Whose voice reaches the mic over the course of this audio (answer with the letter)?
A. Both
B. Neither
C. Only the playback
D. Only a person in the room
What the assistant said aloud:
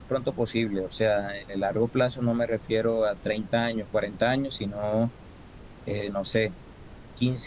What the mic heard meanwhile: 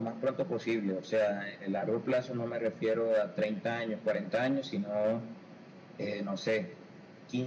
C